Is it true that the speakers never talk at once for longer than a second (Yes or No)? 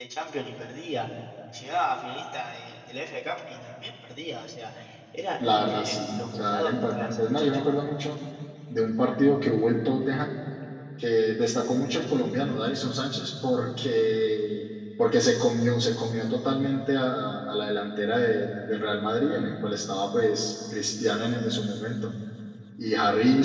No